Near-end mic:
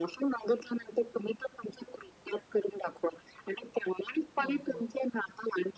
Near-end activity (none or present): present